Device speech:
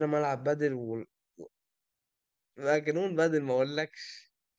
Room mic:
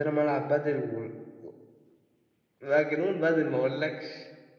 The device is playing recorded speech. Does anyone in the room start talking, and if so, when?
none

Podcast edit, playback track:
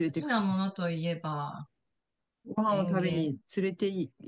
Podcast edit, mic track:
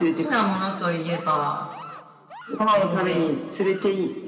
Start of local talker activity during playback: none

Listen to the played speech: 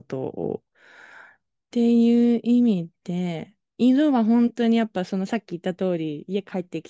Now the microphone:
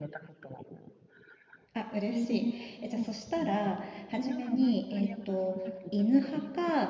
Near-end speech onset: 1.7 s

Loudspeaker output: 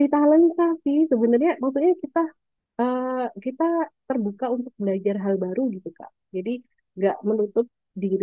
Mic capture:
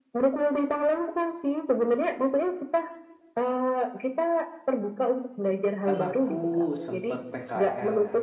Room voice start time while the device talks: 5.8 s

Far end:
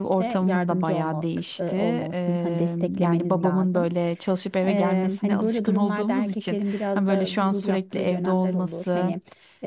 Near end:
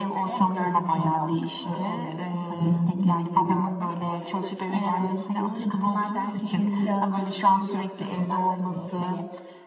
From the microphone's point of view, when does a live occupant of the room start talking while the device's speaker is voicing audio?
none

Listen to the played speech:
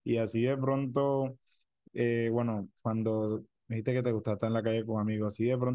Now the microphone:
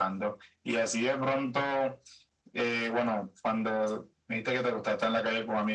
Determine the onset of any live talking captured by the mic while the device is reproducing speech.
none

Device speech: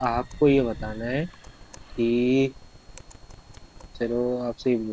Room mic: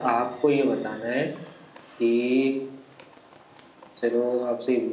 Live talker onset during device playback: none

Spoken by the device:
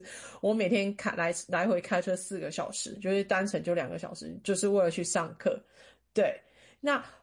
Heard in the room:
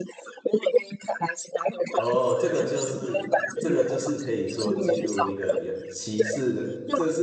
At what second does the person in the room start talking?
1.9 s

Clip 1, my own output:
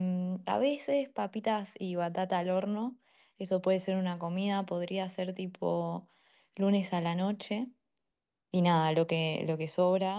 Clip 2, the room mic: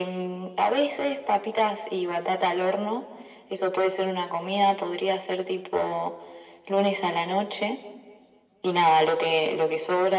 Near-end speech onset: none

